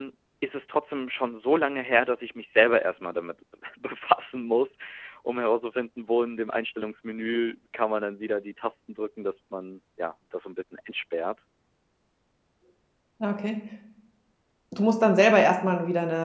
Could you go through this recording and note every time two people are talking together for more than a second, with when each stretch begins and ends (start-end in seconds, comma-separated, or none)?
none